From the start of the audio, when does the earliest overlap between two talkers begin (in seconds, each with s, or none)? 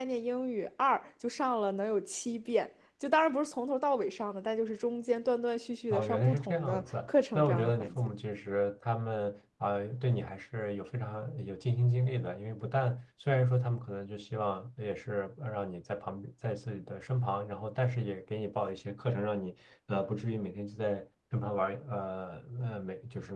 5.9 s